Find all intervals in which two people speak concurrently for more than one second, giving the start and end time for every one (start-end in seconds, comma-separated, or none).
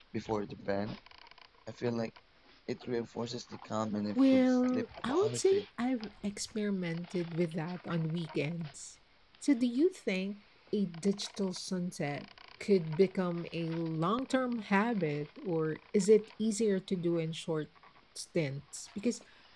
4.2-5.7